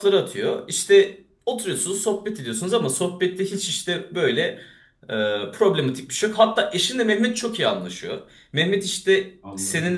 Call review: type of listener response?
listening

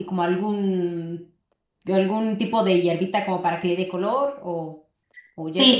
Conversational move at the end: taking over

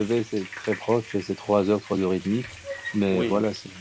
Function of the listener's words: listening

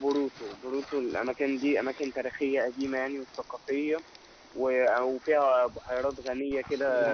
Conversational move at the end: taking over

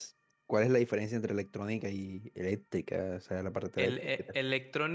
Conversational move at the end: taking over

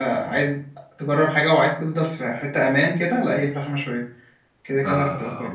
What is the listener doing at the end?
taking over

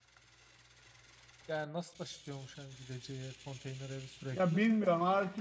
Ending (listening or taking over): taking over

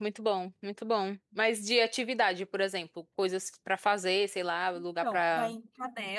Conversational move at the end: taking over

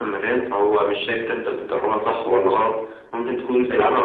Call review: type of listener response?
listening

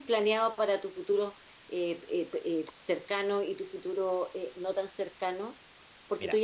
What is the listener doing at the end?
listening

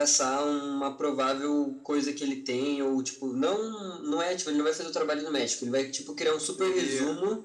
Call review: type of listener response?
listening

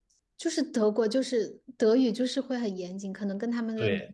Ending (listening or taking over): taking over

